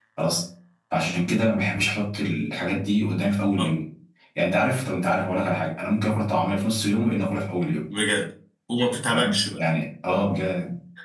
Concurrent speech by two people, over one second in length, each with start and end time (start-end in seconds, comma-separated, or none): none